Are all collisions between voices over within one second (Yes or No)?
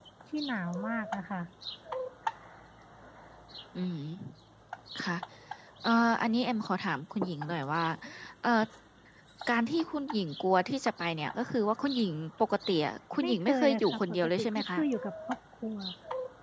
No